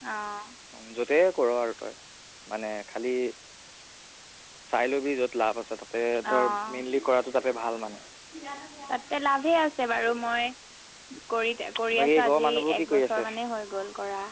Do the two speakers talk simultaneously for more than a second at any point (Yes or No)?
Yes